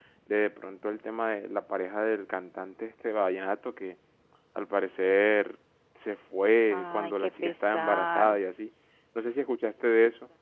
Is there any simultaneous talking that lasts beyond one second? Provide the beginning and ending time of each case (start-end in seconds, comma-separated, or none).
6.7-8.4